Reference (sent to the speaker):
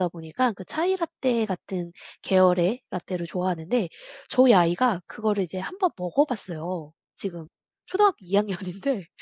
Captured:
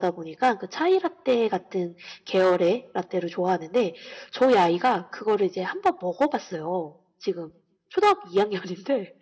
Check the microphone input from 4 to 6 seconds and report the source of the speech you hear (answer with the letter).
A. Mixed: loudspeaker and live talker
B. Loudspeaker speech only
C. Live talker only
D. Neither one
B